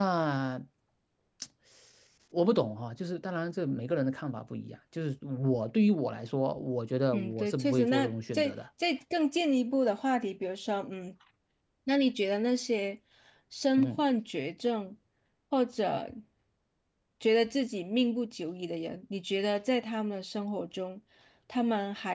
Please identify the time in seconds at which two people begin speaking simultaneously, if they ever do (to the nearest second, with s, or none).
7 s